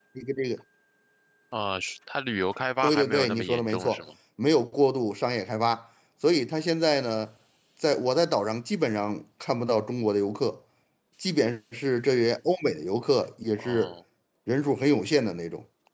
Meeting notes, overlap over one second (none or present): present